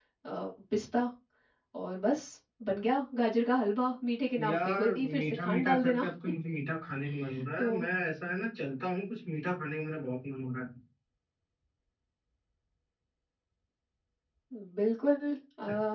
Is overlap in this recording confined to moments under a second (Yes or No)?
No